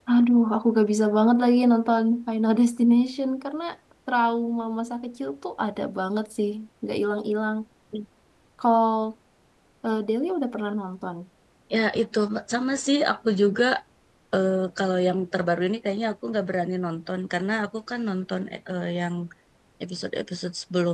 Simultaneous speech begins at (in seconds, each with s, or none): none